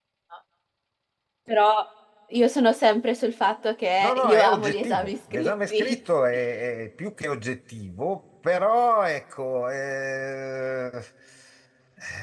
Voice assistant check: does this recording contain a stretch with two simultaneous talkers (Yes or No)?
Yes